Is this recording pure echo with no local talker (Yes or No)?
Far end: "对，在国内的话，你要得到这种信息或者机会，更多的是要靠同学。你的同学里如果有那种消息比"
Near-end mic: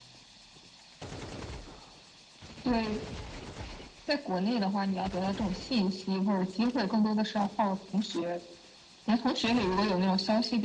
Yes